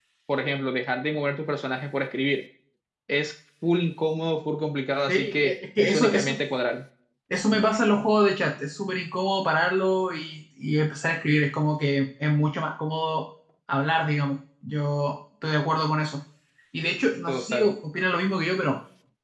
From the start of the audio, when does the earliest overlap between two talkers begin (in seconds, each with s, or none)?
5.1 s